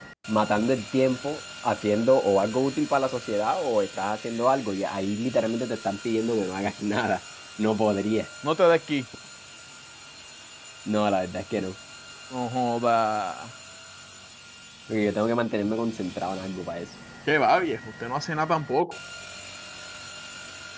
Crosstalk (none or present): none